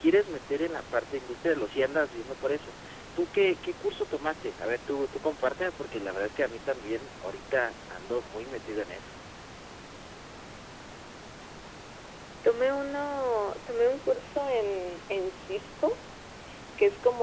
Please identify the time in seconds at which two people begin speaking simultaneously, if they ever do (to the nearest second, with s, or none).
none